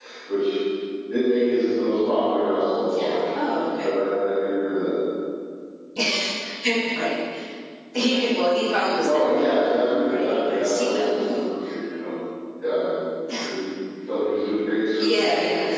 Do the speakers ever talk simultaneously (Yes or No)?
Yes